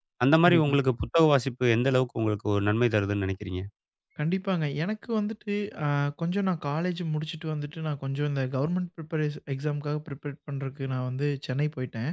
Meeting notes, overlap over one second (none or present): none